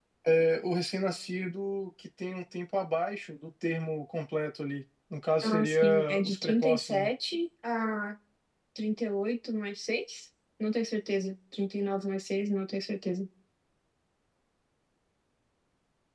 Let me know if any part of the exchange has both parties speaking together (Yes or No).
Yes